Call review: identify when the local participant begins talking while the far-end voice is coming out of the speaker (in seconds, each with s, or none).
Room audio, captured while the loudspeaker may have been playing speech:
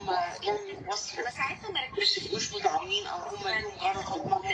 none